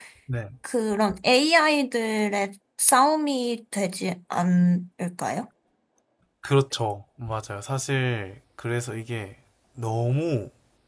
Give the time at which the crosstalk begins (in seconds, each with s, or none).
none